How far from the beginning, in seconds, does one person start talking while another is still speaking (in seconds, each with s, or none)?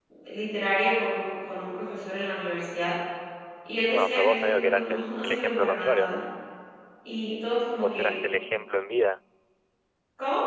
3.9 s